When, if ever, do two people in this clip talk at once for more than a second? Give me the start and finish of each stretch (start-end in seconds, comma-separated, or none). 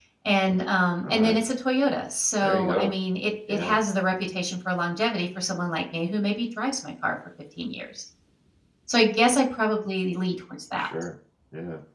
none